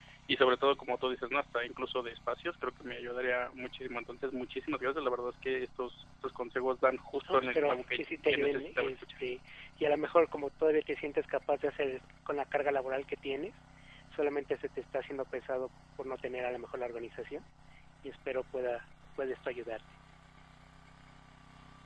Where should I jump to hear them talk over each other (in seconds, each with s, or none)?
7.2 s